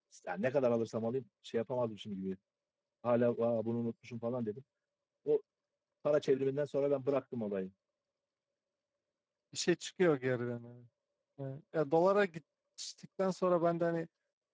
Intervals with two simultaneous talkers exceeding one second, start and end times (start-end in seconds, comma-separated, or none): none